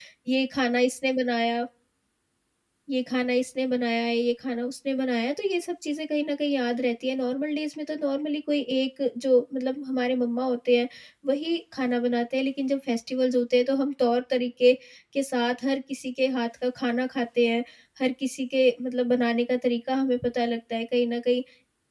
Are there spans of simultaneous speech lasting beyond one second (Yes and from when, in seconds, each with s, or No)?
No